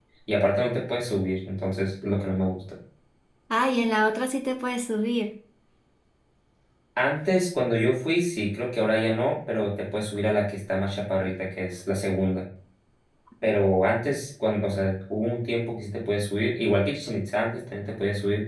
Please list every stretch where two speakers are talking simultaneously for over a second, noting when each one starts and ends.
none

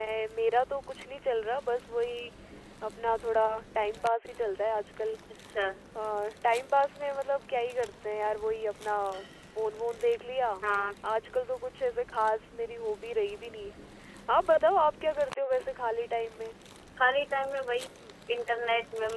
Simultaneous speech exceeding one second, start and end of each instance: none

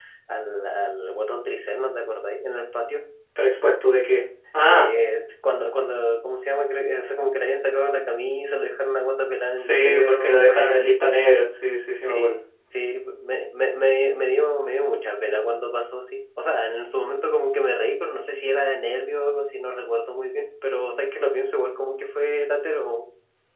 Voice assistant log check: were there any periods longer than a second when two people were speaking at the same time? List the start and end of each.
9.6-10.9

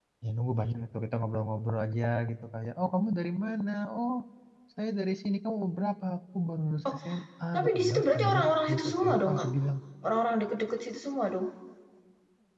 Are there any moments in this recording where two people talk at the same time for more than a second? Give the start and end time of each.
7.5-9.5

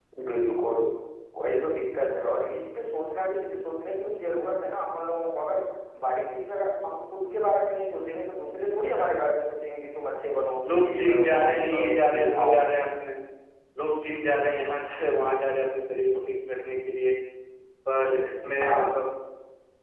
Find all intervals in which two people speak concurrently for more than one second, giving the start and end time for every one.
10.7-12.6

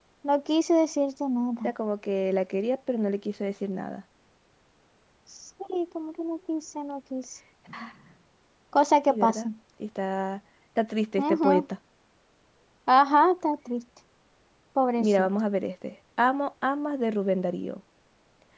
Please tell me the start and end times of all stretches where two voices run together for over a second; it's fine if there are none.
none

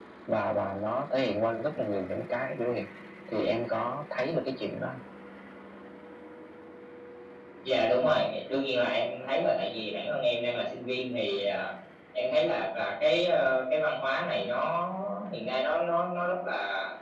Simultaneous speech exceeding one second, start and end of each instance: none

